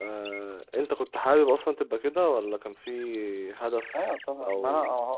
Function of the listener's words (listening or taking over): taking over